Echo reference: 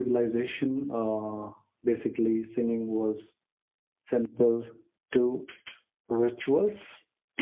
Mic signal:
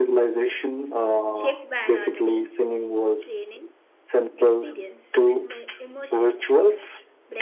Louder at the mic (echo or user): echo